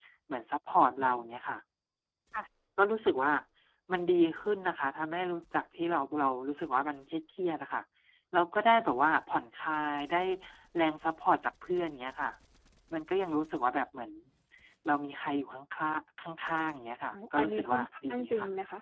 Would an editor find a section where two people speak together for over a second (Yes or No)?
Yes